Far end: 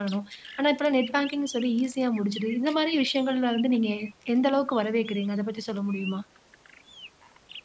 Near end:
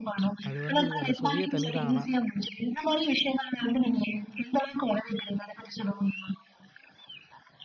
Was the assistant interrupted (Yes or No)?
Yes